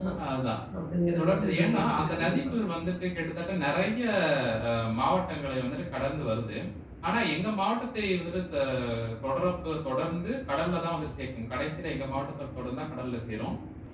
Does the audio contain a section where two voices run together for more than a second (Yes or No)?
Yes